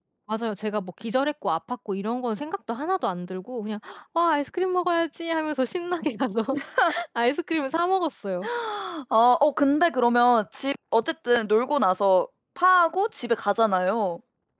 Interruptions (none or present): none